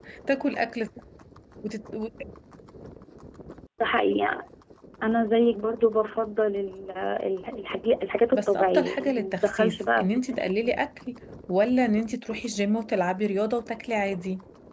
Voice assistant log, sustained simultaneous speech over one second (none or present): present